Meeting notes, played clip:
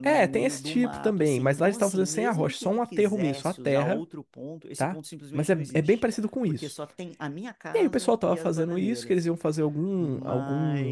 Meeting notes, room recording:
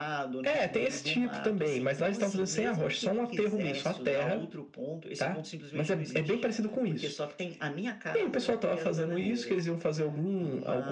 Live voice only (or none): none